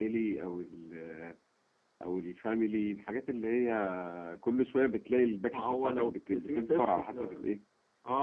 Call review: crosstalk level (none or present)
present